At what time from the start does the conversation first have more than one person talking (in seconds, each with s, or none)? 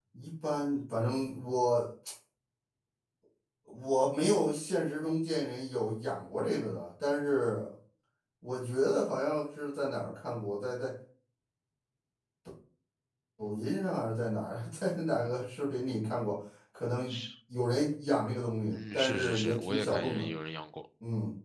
18.7 s